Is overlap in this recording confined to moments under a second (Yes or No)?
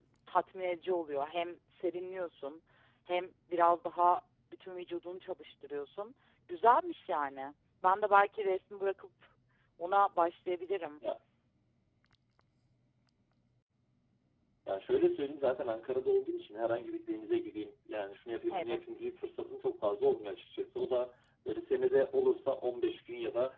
Yes